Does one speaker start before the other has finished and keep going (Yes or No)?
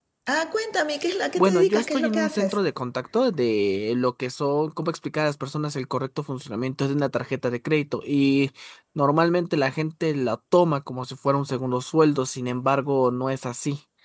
Yes